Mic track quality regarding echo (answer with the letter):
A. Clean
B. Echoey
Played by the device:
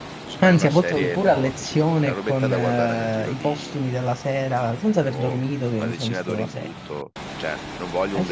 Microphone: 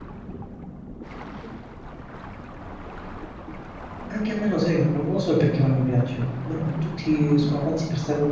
A